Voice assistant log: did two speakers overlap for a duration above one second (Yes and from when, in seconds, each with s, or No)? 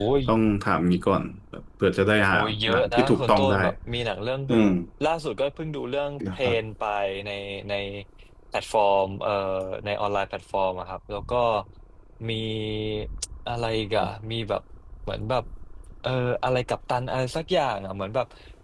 Yes, from 2.3 s